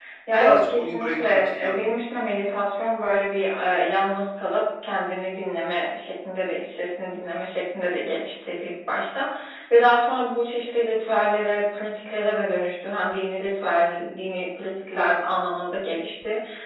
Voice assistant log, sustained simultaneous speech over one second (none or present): present